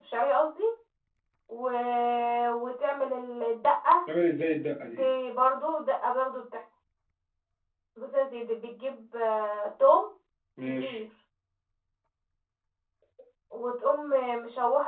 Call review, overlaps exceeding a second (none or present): none